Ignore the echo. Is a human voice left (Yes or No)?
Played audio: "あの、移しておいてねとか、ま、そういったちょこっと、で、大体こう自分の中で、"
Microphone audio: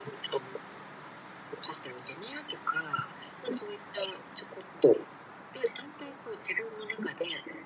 No